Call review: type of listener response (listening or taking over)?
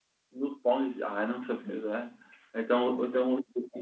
listening